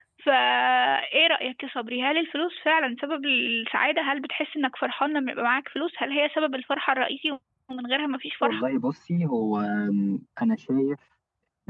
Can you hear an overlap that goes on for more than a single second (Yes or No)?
No